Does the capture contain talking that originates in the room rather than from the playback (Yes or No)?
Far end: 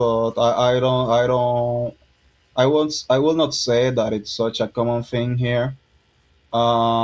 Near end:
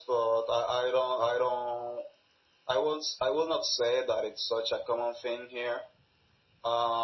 No